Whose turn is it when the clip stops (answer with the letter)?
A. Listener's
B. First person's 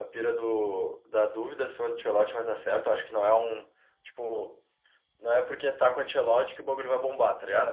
B